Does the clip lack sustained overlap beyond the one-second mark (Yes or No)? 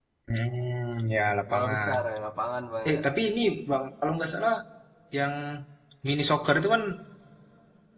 Yes